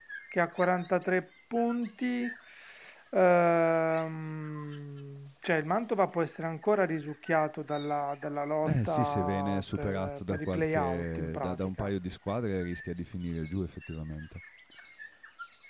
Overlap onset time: 8.6 s

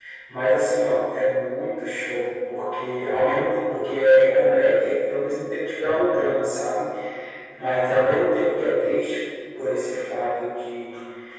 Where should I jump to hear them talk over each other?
none

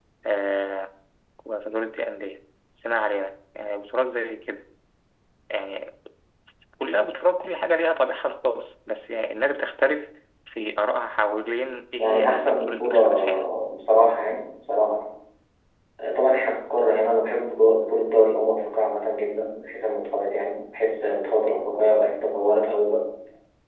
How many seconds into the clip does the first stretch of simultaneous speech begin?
12.0 s

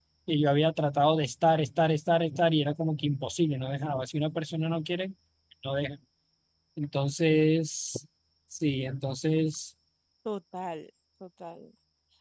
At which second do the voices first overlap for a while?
none

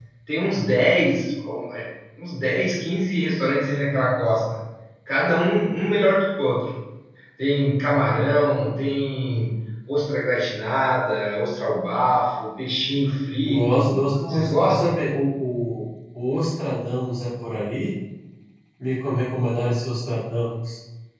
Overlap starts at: 13.4 s

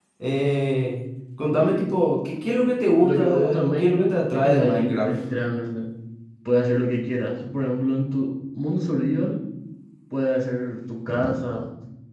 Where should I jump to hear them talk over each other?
3.0 s

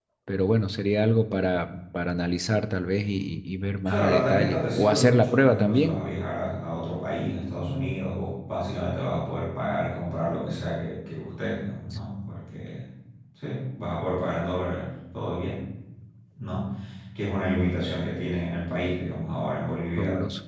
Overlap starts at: 3.8 s

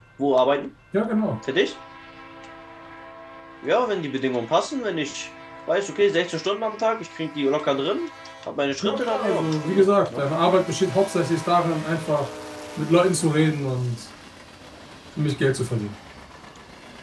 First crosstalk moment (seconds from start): 8.8 s

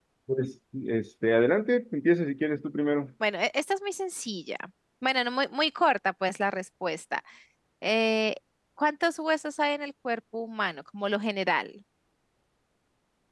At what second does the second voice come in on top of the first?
none

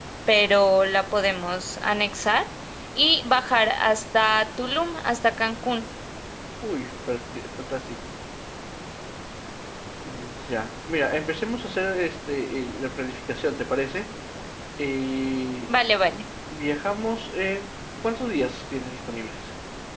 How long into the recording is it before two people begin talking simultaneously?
none

